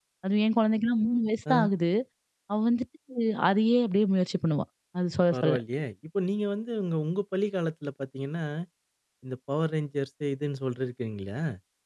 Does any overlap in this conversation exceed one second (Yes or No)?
No